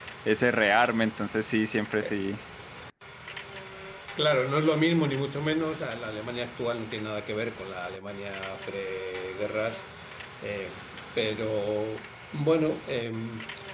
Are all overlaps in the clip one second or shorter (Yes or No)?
Yes